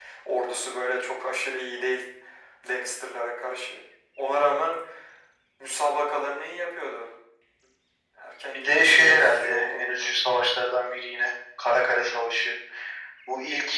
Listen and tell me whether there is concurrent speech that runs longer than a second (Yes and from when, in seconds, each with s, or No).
Yes, from 8.5 s